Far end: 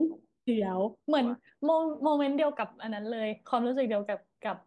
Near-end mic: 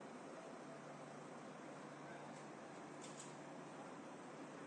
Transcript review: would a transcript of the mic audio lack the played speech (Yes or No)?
Yes